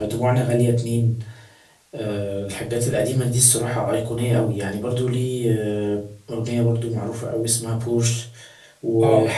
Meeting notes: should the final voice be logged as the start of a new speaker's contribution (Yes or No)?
No